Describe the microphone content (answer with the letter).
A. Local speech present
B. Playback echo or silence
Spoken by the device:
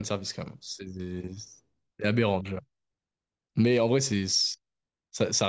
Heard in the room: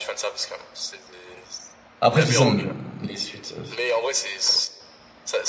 A